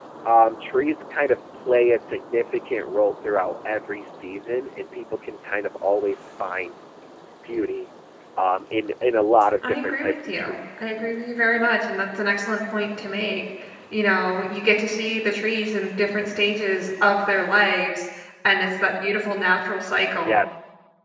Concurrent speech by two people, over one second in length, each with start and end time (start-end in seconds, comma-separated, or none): 9.6-10.9